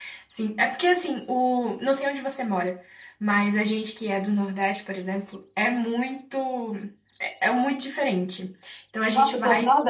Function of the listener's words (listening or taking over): taking over